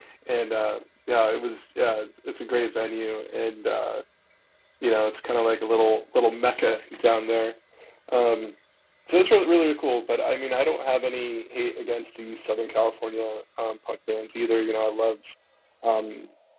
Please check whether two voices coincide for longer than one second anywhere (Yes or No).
No